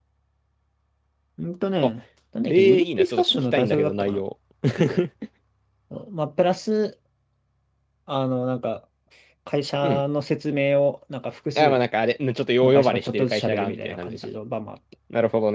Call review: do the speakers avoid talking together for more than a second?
No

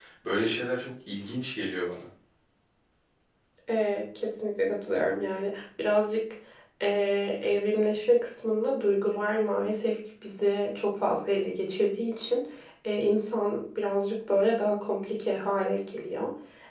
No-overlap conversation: Yes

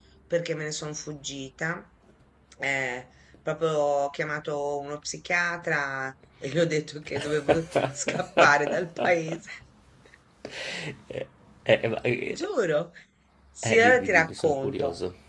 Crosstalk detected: Yes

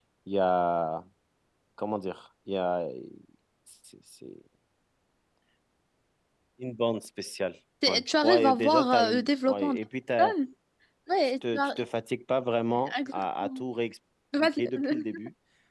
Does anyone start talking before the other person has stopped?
Yes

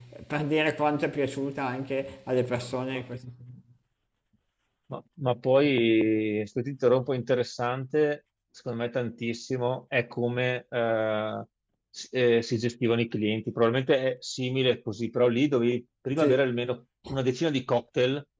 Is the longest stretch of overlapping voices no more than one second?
Yes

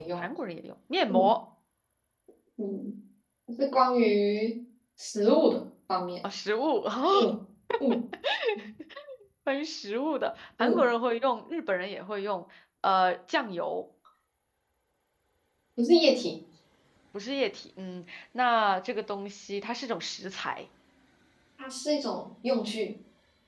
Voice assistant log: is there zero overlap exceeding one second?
Yes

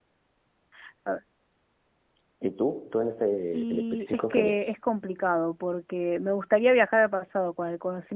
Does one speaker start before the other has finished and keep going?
Yes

